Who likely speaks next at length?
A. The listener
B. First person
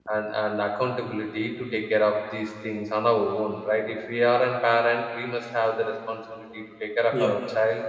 B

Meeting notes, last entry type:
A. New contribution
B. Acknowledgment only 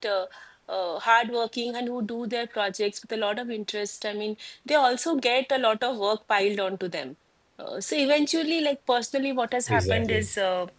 B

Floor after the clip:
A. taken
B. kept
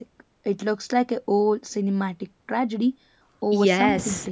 A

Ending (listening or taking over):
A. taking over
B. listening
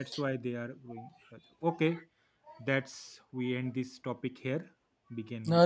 A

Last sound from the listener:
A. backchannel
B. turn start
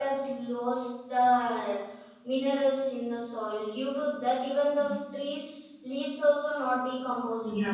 B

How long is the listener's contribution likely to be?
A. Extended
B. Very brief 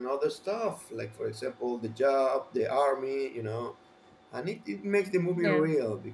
B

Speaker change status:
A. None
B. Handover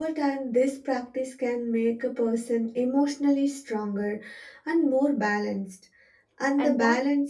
A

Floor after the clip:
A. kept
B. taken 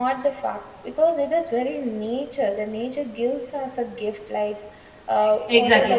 B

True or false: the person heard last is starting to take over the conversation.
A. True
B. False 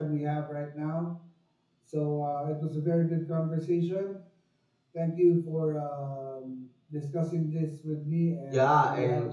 A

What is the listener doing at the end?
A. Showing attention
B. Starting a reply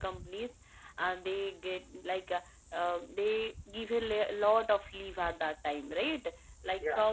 A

